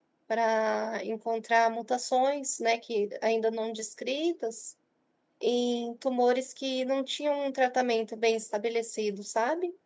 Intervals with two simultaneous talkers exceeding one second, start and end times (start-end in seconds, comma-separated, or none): none